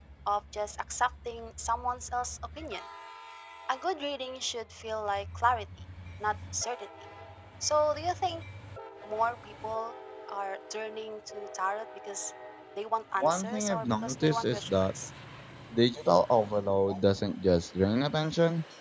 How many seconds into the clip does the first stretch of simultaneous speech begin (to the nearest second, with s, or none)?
13 s